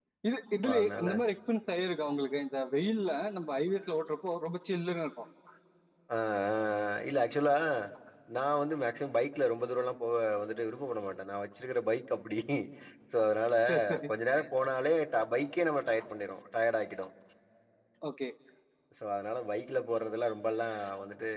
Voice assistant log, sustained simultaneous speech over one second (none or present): none